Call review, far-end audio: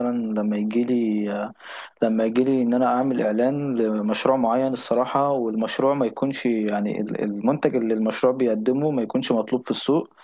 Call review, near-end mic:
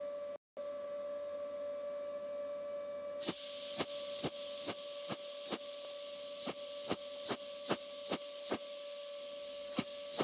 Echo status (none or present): none